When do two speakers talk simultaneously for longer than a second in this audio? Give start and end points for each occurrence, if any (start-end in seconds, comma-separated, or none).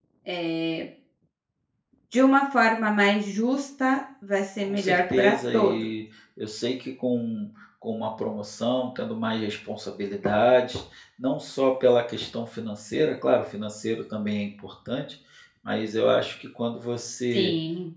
4.6-5.9